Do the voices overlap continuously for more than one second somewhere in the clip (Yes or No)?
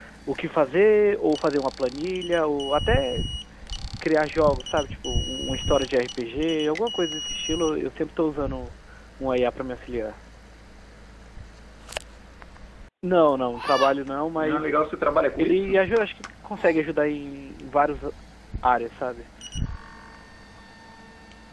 No